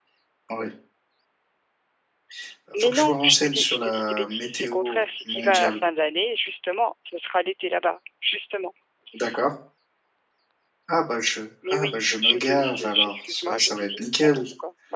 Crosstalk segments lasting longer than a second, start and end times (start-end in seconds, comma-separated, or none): 2.7-5.8, 11.7-14.4